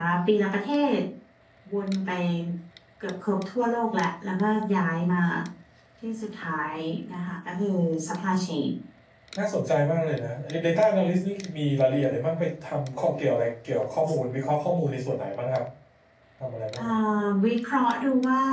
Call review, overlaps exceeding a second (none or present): none